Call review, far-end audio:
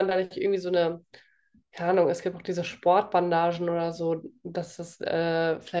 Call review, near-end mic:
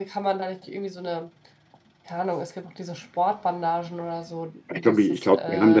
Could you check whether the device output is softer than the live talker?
Yes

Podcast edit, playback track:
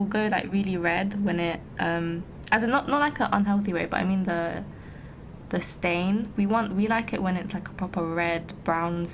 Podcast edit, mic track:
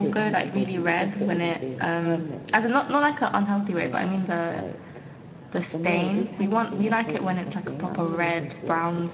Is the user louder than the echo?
No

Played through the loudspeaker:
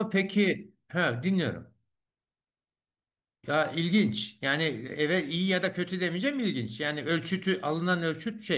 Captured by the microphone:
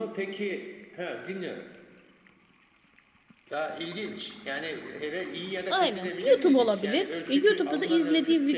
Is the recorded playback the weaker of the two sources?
Yes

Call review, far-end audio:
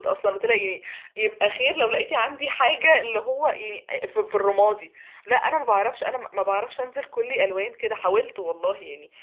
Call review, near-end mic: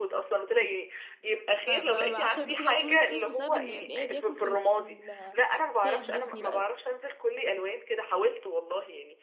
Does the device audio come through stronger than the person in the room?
Yes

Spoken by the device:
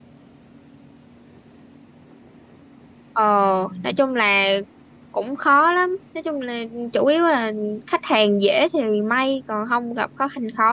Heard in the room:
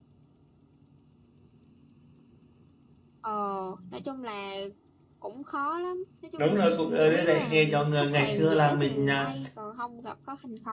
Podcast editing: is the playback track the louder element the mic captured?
No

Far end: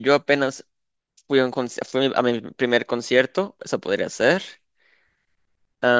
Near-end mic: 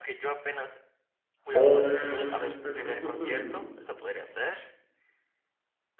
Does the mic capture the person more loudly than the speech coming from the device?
Yes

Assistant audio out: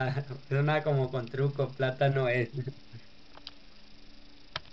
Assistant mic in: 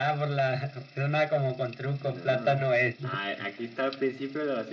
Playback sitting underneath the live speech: No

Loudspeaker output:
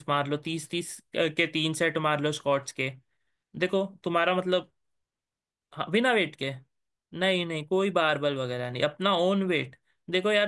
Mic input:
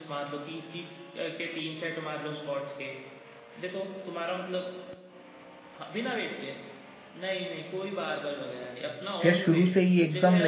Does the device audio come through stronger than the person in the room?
No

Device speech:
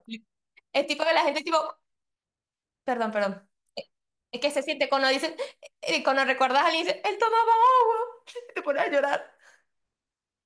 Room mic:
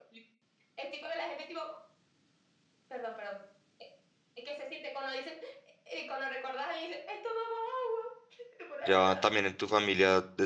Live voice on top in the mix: Yes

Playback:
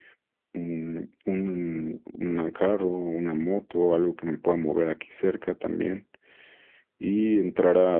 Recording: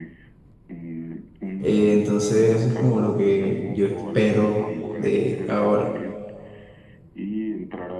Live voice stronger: Yes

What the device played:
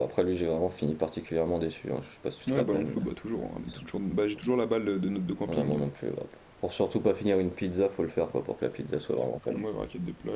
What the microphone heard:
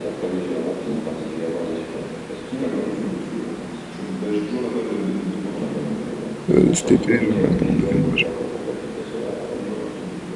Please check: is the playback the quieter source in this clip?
Yes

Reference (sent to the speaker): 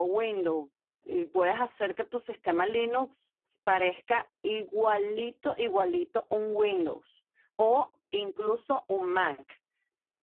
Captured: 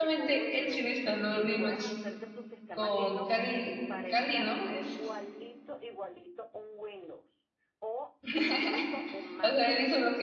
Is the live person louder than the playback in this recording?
Yes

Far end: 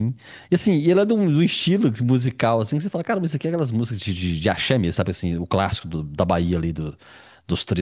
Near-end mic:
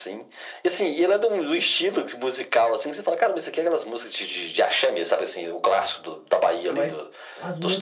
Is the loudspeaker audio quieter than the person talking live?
No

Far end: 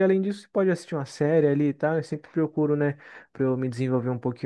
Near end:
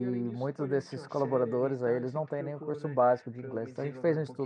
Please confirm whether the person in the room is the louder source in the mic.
Yes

